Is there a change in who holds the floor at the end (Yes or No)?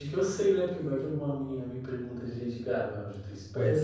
Yes